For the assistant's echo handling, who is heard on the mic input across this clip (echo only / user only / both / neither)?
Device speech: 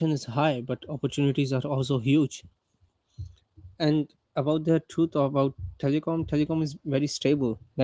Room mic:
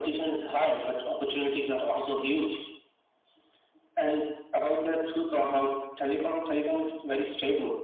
echo only